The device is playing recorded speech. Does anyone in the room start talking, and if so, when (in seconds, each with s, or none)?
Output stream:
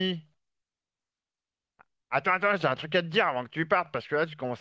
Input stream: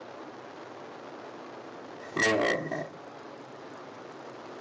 2.2 s